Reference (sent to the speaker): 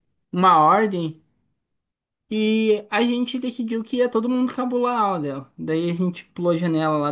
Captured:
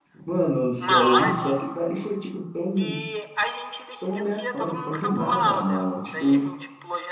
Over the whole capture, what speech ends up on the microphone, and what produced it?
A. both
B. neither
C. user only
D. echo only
A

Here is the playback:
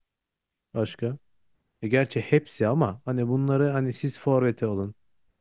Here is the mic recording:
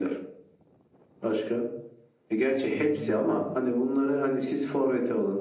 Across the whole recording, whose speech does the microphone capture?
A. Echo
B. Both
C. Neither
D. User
B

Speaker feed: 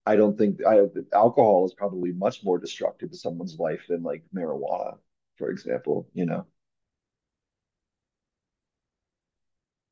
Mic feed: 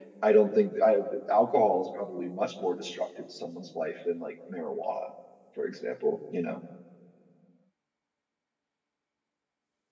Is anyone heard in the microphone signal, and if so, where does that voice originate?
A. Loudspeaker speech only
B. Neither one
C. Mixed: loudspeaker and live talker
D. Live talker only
A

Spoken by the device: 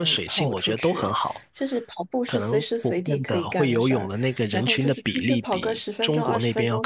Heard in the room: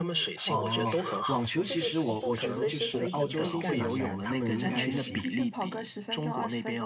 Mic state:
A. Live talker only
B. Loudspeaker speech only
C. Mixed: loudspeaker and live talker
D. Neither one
C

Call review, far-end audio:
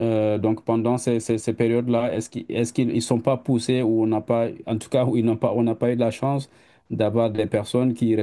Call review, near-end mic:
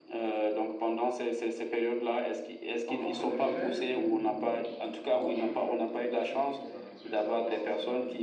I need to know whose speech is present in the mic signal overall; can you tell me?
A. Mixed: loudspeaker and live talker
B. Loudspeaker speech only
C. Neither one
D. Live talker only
A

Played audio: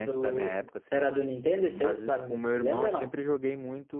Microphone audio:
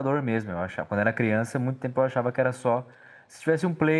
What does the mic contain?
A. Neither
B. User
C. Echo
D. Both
B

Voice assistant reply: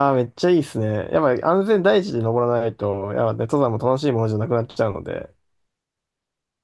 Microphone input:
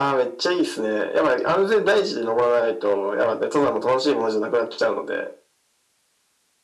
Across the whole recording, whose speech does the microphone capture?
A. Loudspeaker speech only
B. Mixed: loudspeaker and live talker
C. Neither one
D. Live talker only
A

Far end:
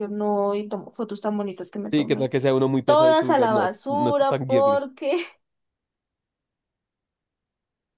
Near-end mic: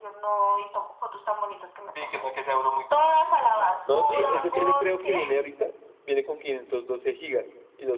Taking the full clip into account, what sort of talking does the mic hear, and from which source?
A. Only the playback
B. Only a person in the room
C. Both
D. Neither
C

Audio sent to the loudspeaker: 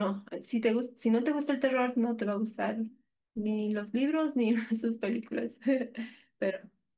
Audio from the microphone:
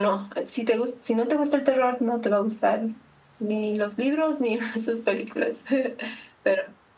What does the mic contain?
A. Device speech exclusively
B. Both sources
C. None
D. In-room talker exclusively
A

